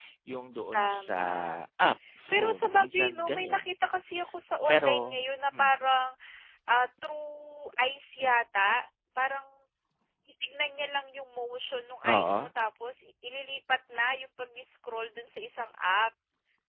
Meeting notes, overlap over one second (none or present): present